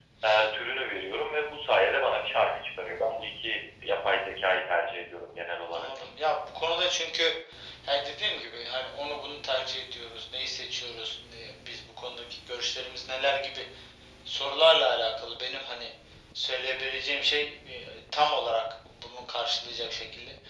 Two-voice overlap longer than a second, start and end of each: none

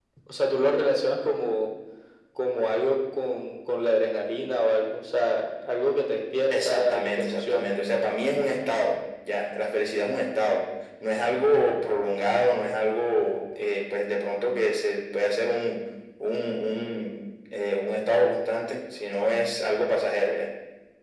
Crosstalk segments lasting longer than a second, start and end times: 6.5-7.7

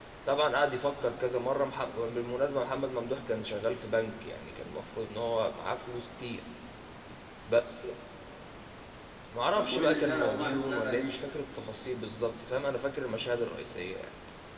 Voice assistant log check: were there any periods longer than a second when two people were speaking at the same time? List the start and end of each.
9.6-11.2

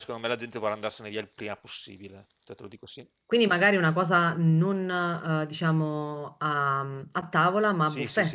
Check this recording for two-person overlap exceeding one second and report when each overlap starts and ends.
none

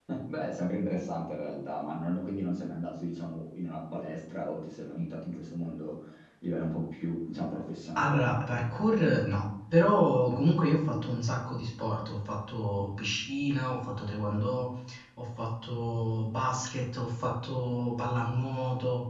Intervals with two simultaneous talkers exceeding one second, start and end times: none

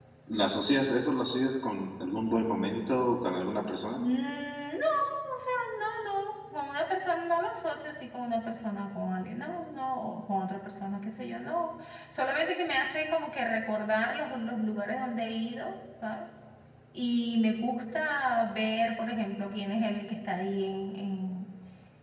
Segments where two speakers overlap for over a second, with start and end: none

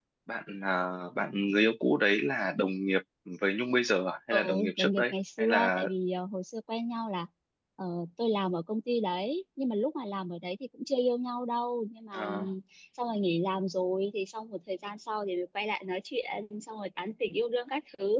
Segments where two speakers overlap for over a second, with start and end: 4.3-5.8

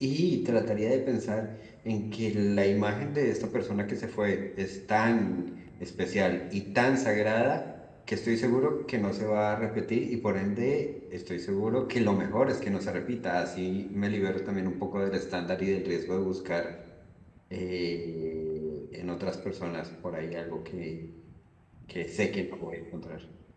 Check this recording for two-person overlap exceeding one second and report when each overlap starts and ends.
none

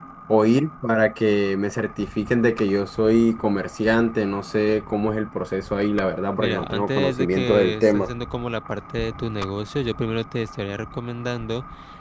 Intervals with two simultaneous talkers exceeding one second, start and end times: 6.4-8.1

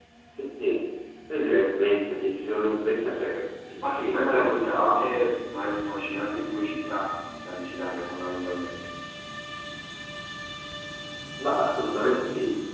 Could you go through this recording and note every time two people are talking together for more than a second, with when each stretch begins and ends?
3.8-5.2

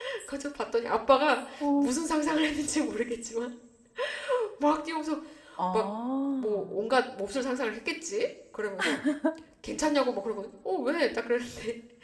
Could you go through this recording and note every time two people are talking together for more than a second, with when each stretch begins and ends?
none

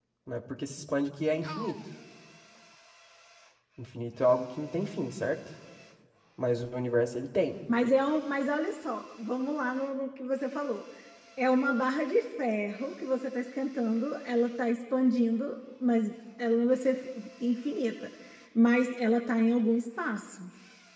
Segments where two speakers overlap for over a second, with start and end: none

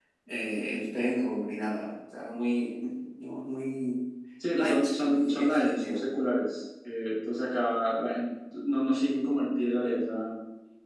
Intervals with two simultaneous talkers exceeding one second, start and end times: 4.5-6.0

